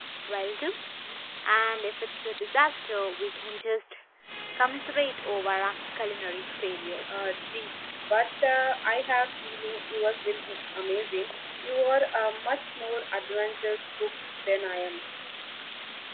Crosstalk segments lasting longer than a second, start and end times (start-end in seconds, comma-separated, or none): none